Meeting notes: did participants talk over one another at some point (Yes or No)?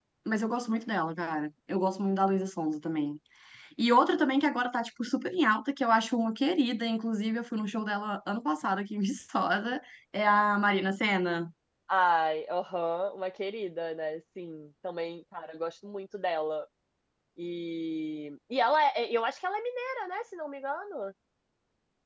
No